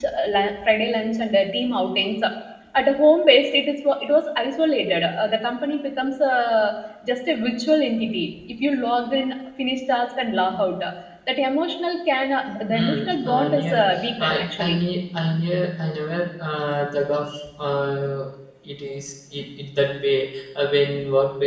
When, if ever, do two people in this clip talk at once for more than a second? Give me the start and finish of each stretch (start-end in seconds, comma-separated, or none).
12.7-14.8